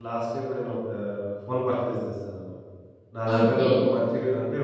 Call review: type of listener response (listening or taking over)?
listening